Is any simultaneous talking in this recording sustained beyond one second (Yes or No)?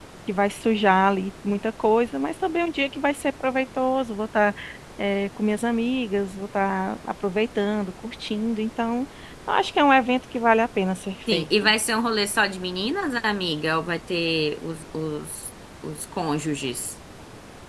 No